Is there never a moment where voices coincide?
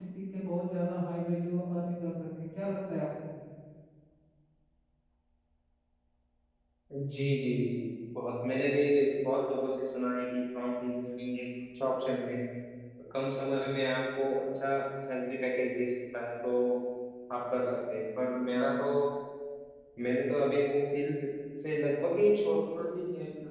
Yes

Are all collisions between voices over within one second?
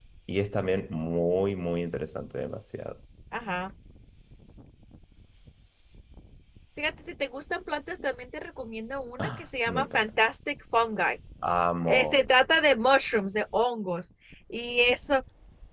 Yes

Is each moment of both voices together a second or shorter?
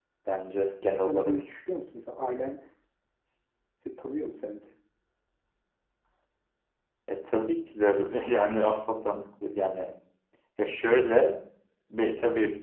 Yes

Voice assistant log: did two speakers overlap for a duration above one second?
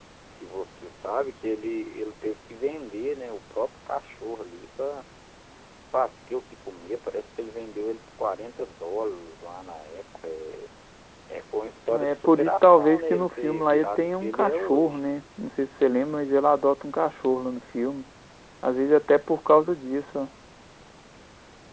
Yes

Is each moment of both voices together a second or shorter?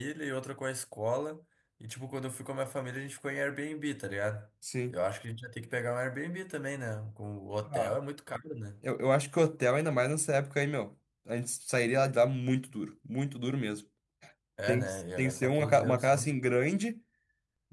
No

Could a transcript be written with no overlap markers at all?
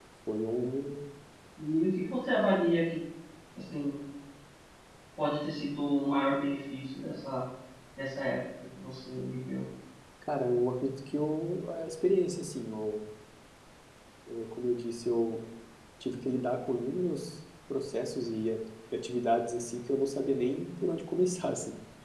Yes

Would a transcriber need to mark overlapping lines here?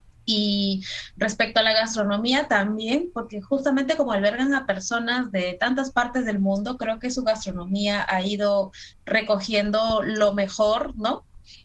No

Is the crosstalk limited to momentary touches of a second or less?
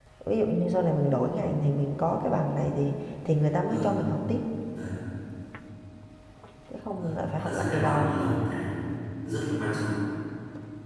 No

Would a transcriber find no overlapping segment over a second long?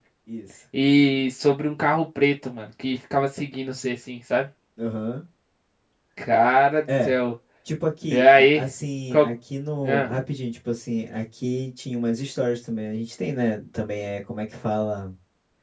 Yes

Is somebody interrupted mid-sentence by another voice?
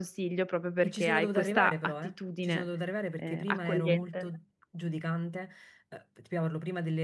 Yes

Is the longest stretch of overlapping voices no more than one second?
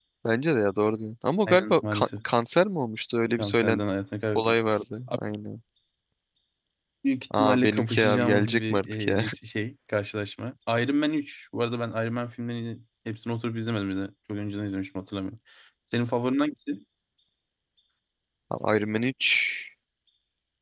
No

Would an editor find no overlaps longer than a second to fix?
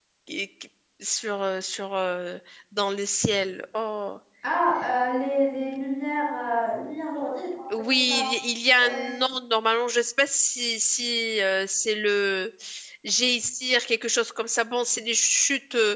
Yes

